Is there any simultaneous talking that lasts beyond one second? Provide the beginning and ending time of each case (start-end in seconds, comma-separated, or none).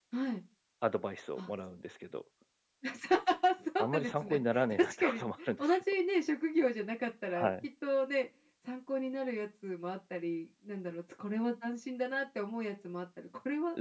3.8-5.8